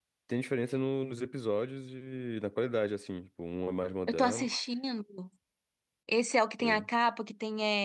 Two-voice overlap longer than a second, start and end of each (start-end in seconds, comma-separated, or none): none